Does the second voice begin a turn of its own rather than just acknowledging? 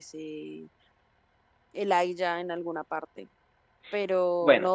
No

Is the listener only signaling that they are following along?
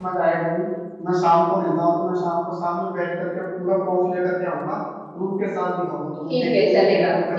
No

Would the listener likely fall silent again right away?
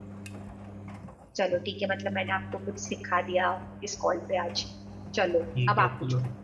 No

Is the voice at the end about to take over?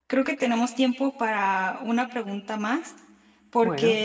No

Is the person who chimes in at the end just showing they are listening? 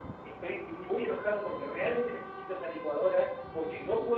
Yes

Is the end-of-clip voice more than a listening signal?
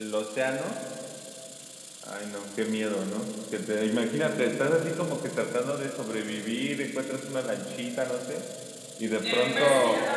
Yes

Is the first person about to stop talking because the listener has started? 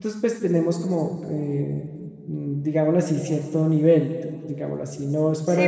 Yes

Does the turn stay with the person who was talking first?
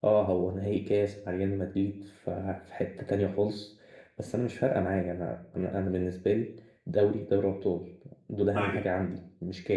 Yes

